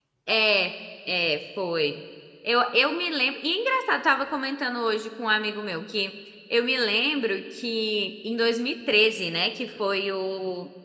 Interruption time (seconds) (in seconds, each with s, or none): none